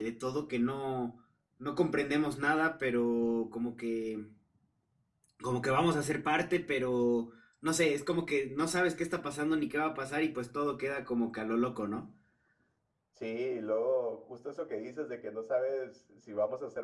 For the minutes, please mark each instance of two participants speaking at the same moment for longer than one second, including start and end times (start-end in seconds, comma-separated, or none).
none